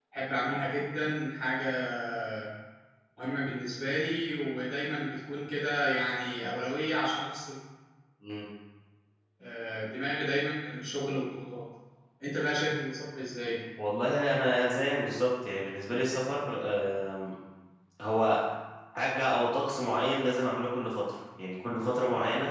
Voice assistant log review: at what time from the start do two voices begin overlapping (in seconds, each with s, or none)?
none